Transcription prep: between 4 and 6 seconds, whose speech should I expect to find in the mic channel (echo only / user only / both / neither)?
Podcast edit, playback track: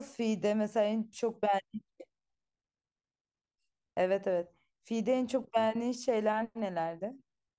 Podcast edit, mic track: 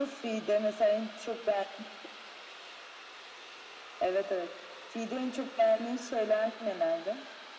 echo only